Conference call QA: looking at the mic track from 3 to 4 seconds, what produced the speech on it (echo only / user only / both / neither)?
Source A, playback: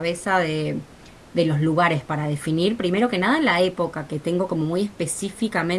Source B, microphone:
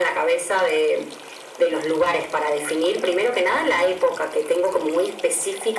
echo only